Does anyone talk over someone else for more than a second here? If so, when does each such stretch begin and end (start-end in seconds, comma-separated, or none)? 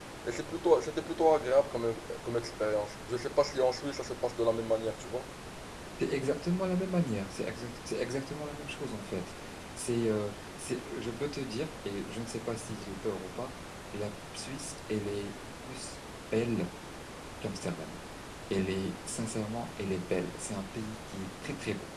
none